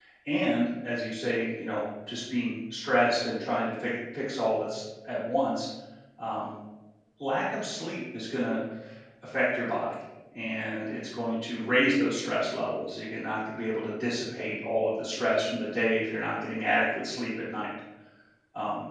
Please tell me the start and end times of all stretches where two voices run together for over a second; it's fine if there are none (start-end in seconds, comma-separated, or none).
none